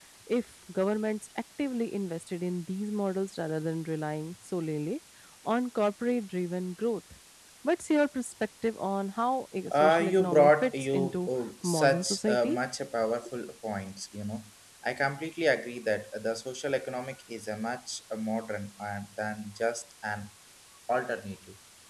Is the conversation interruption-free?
No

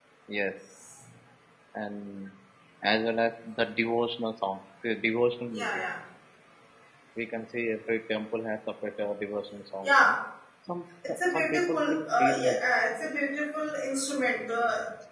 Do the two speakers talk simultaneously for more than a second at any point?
Yes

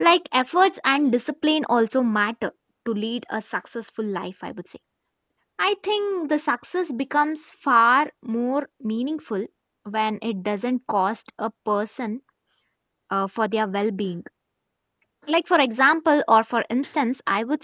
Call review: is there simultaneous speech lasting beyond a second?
No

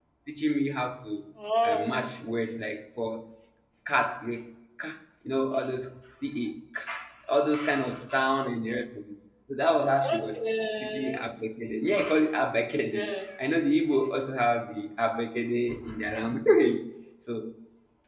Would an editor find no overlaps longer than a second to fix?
Yes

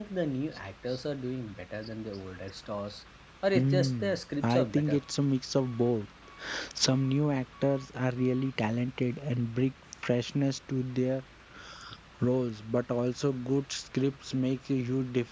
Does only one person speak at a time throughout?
No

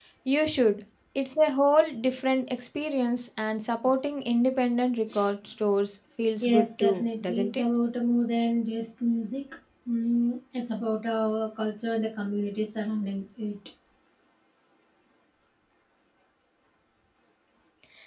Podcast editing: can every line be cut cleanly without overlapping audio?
No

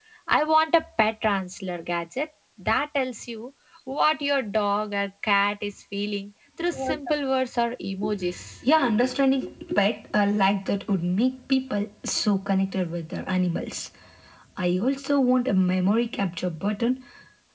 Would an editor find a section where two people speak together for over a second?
No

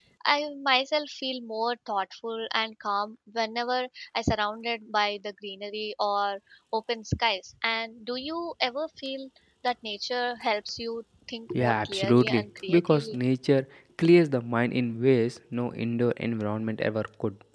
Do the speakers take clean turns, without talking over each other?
No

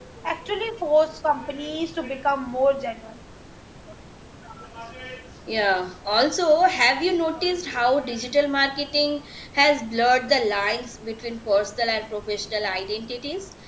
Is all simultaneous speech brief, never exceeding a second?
Yes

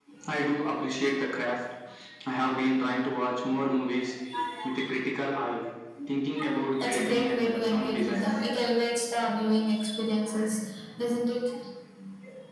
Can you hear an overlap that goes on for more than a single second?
Yes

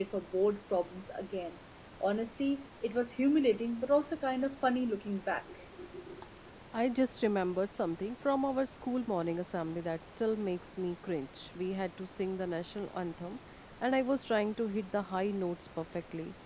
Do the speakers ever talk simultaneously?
No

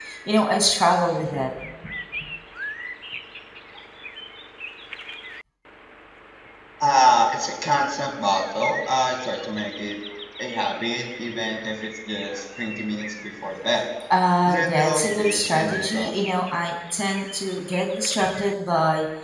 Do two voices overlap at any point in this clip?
Yes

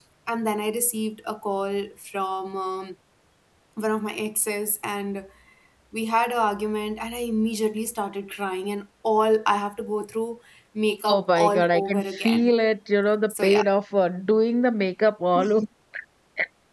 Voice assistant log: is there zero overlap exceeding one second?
No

